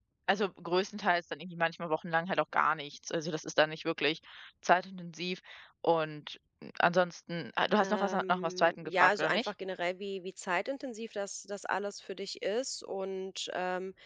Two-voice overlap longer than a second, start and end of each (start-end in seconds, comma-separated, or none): 7.8-9.5